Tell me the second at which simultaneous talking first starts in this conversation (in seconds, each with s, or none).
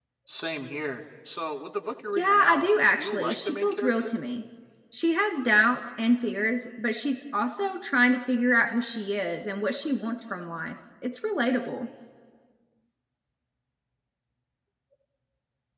2.2 s